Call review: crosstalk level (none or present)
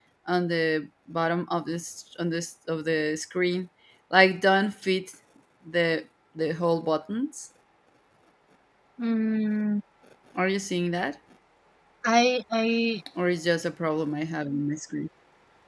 none